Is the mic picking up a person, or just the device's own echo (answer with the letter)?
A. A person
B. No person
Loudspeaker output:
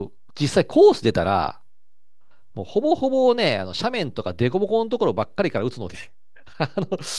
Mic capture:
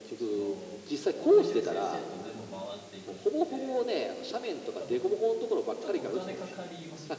A